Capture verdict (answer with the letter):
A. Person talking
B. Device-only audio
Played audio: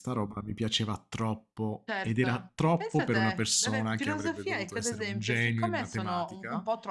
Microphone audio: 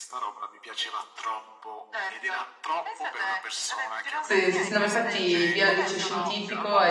A